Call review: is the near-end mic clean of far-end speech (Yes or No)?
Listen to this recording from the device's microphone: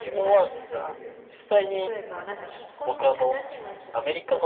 No